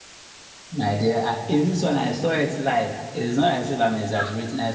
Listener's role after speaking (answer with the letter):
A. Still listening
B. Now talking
A